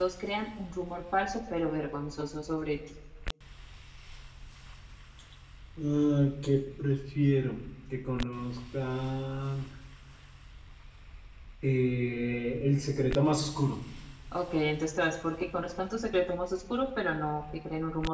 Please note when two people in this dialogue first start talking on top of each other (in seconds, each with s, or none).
none